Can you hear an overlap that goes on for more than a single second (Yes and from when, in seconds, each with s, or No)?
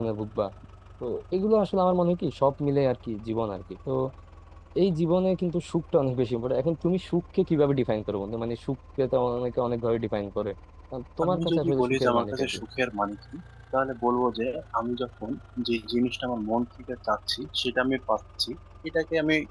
Yes, from 11.2 s